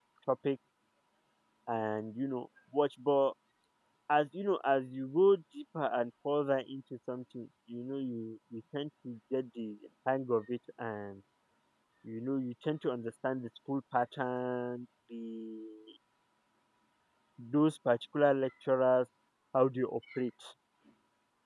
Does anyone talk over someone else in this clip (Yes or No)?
No